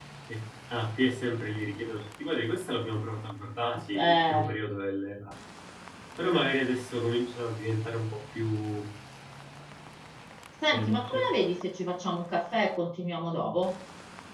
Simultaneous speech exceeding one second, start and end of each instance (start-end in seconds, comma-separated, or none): none